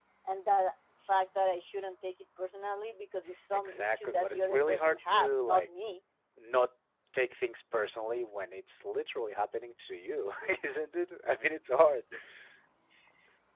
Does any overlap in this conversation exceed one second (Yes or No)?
Yes